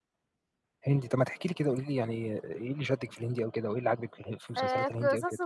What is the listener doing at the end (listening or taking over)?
taking over